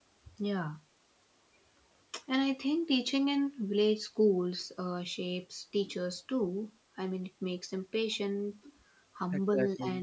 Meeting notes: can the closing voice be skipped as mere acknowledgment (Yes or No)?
Yes